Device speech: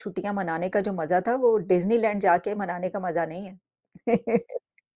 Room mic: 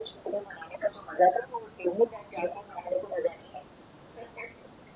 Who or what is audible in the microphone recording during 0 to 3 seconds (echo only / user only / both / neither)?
echo only